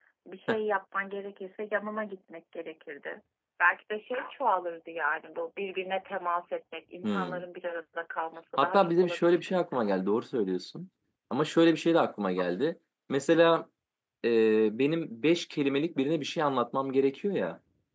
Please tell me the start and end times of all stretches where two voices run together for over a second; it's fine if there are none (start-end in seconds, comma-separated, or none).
8.6-9.9